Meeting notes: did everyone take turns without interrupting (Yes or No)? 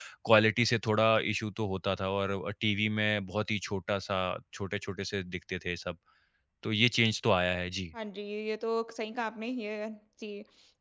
Yes